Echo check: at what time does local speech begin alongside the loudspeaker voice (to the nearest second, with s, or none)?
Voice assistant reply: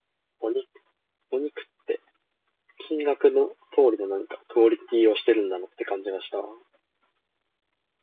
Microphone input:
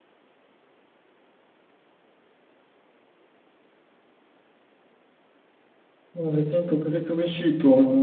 6 s